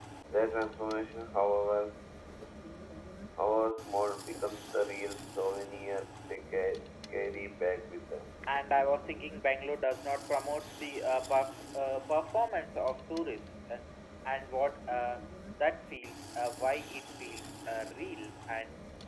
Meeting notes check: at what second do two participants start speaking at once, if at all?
none

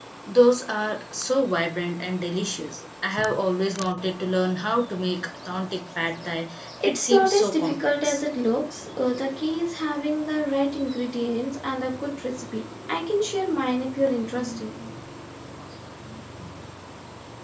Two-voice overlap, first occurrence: 6.8 s

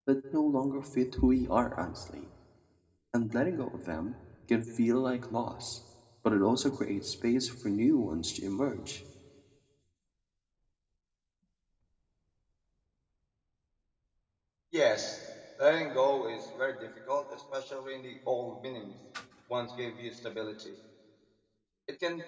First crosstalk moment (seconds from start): none

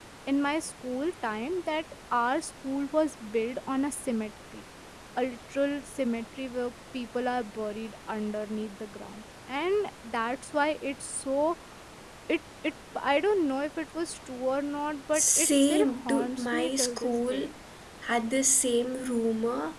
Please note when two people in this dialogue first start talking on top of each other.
15.1 s

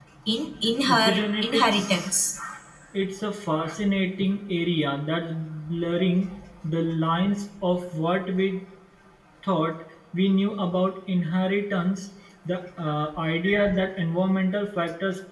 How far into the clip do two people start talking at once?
0.9 s

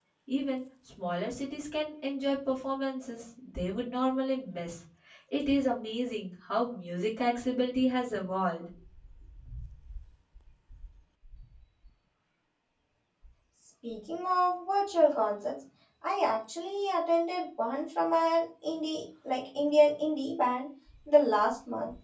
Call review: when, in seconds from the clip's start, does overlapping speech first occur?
none

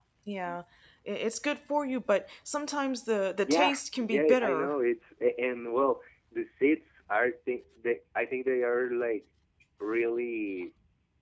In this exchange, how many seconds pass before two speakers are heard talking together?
3.5 s

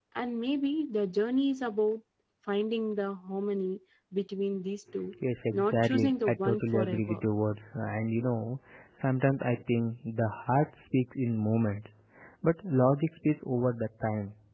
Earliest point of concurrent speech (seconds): 5.6 s

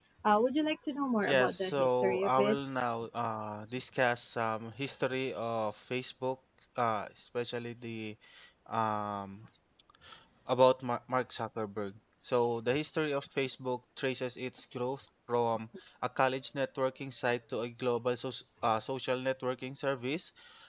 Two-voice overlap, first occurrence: 1.2 s

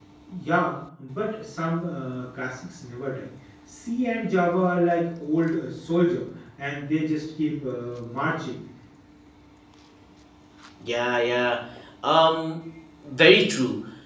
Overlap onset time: none

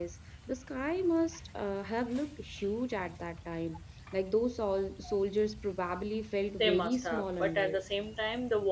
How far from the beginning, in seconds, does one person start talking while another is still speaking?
6.6 s

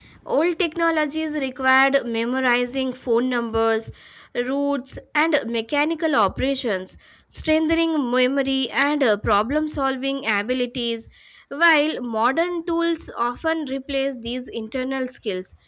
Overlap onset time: none

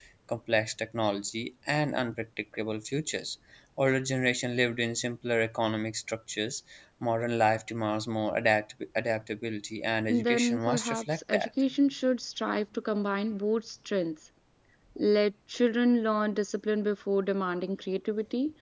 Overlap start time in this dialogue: 10.1 s

